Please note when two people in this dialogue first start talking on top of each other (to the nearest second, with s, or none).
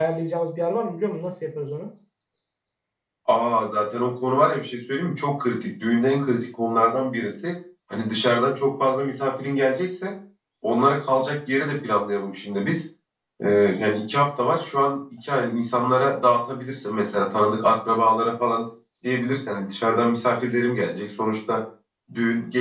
none